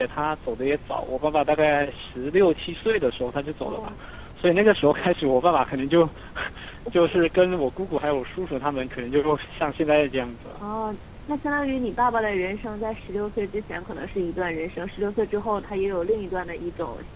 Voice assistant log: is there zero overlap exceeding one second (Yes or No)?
Yes